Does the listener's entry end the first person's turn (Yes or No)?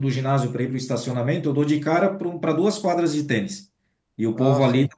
No